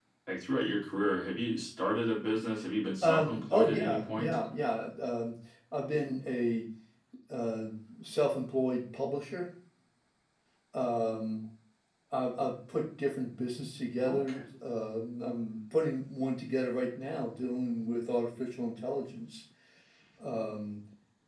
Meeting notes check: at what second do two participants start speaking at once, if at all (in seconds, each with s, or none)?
3.0 s